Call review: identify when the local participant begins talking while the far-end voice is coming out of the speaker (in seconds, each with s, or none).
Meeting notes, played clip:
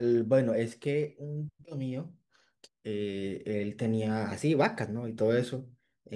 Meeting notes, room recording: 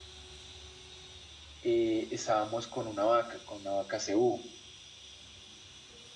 1.6 s